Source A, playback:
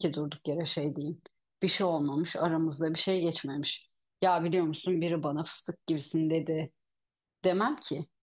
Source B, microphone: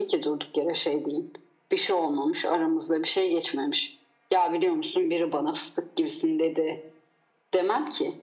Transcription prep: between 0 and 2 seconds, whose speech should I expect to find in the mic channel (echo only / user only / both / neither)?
echo only